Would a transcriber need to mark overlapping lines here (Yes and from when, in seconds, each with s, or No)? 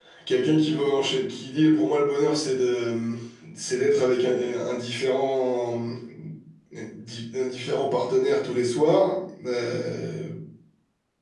No